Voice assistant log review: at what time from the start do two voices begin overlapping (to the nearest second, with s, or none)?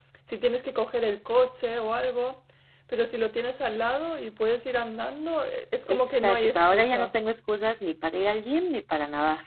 6 s